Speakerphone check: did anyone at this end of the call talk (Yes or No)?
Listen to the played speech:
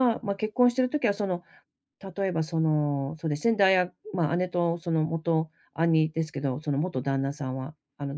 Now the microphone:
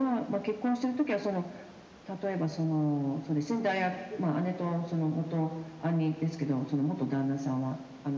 No